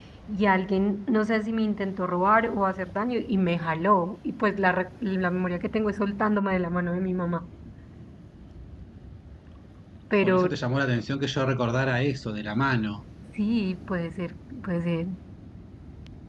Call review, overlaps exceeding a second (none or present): none